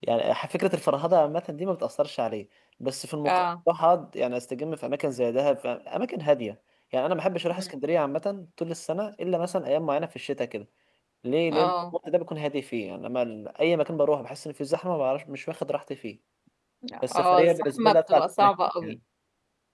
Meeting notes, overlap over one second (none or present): present